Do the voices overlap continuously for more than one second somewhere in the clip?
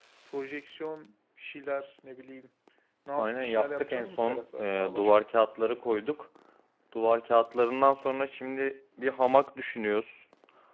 Yes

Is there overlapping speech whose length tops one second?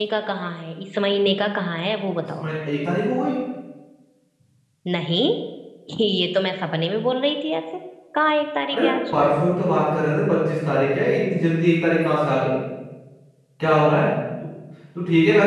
No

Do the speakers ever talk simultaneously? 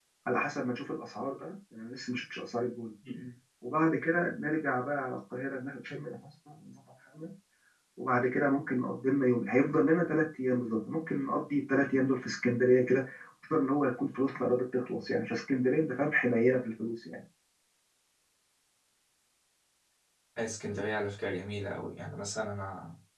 No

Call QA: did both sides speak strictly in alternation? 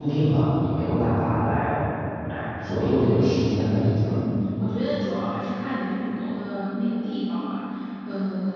Yes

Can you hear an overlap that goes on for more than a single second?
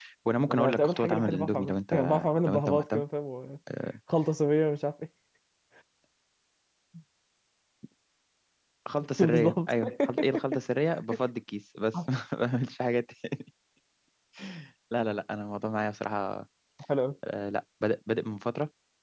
Yes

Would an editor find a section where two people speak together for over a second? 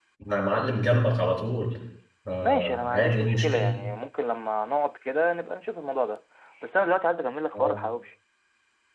Yes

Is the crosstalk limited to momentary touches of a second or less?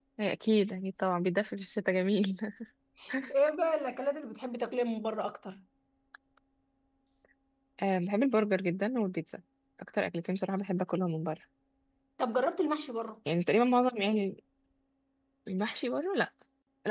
Yes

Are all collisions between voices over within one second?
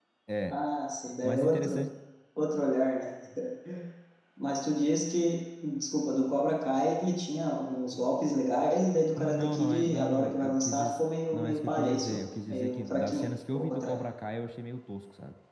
No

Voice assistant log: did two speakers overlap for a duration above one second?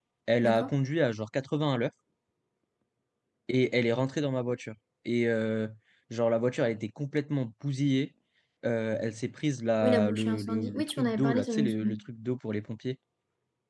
Yes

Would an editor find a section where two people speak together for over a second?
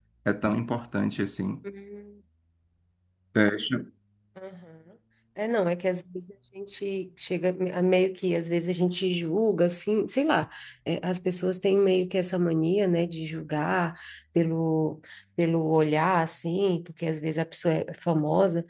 No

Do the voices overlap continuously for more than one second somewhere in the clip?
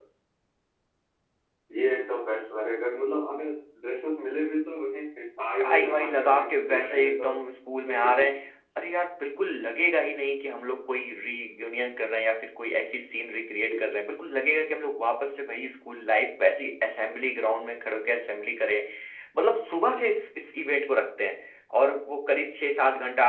Yes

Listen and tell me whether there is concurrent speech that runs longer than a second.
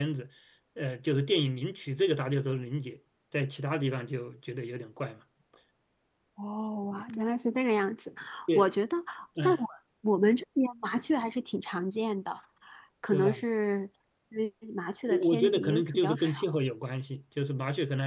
Yes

